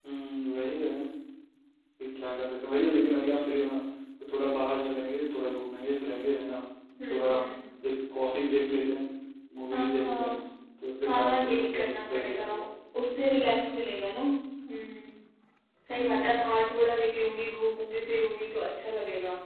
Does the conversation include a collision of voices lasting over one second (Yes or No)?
Yes